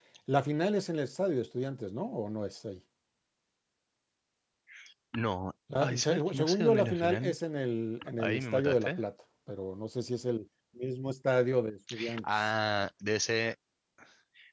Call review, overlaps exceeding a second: present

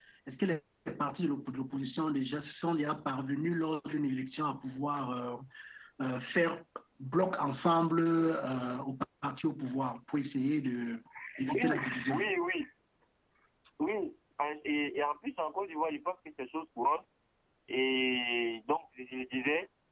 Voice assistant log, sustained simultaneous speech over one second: none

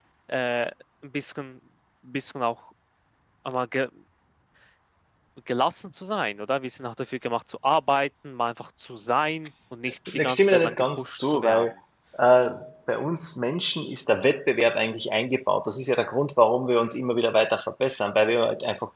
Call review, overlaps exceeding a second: present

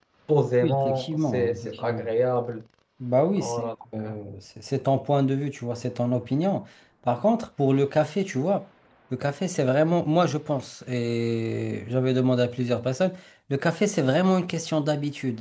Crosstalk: present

